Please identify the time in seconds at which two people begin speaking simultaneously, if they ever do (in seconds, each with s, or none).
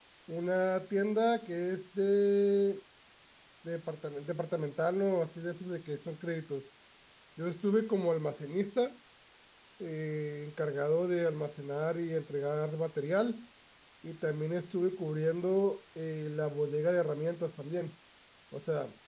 none